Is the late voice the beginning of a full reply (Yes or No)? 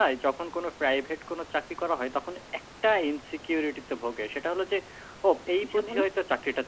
No